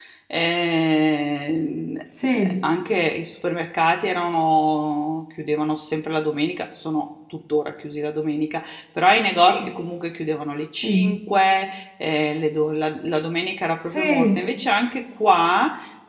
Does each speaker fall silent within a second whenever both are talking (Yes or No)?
Yes